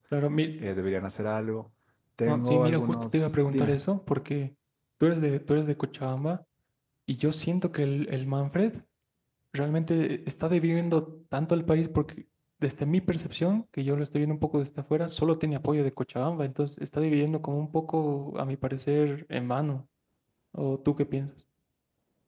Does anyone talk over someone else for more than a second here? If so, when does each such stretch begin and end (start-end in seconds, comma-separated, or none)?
2.3-3.8